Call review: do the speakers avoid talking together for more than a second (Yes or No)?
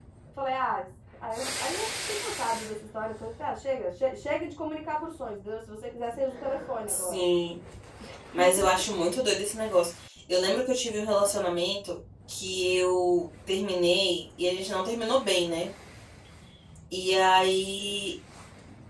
Yes